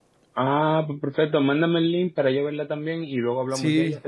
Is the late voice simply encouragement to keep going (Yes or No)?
No